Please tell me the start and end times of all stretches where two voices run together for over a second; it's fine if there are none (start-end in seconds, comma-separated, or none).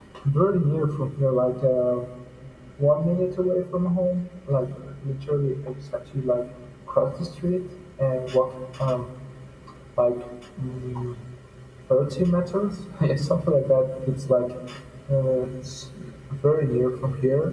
none